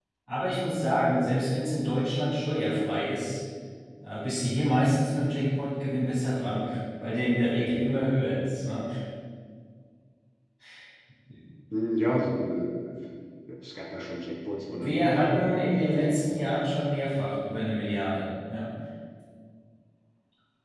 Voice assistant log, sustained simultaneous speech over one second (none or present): present